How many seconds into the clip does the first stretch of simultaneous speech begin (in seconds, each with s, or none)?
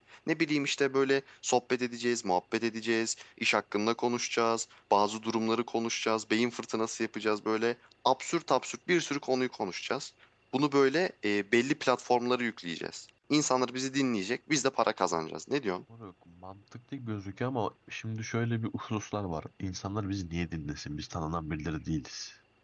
none